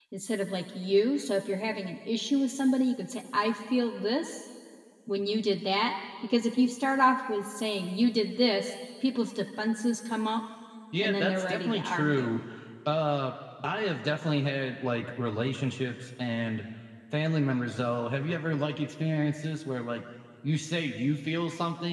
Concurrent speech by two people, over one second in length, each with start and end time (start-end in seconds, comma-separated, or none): 11.0-12.4